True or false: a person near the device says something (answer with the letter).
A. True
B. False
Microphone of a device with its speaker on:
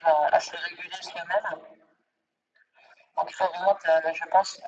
B